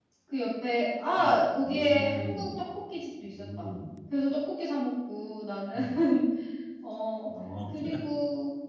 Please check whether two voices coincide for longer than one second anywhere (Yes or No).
Yes